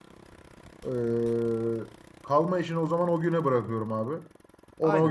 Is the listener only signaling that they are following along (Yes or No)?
No